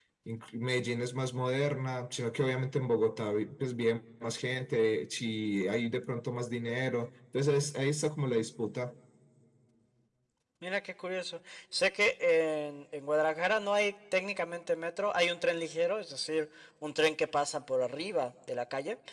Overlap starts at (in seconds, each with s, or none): none